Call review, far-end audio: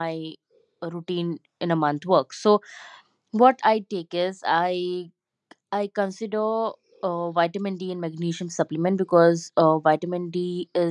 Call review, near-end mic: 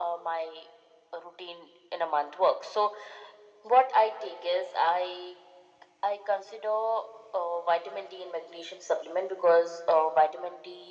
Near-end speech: none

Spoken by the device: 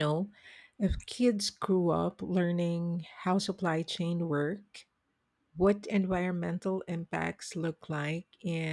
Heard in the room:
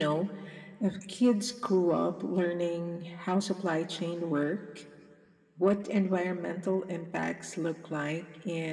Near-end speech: none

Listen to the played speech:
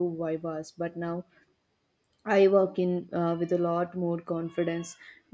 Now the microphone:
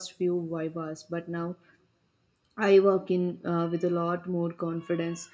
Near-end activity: none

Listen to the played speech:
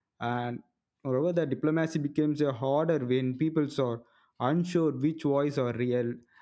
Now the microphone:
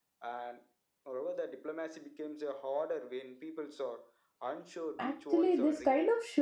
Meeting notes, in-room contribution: present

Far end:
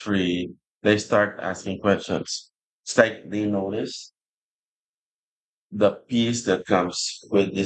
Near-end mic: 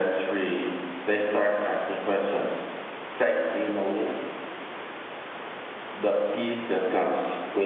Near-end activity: none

